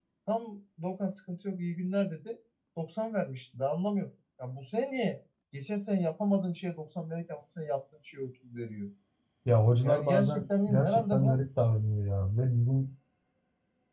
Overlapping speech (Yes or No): Yes